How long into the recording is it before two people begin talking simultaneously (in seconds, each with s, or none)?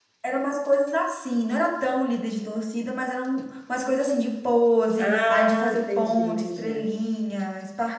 5.0 s